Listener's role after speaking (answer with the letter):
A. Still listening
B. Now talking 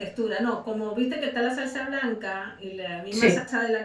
A